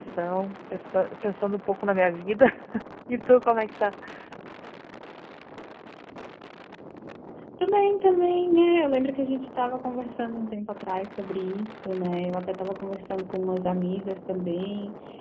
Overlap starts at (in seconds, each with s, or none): none